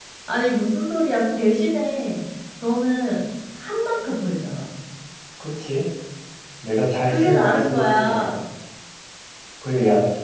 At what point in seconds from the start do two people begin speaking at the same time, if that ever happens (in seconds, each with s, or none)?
7.0 s